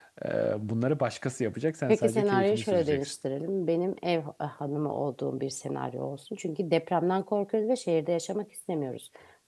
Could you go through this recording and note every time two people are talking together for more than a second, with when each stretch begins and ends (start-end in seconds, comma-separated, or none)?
1.9-3.1